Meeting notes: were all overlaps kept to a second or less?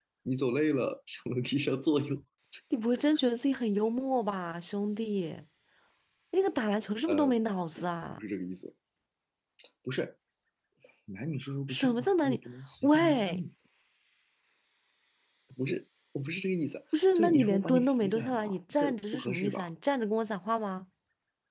No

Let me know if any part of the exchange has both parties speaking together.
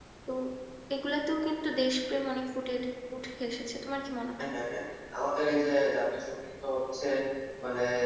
No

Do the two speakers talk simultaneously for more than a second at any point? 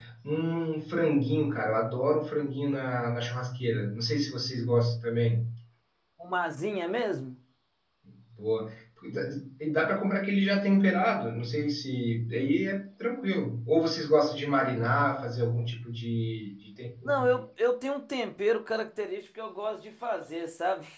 No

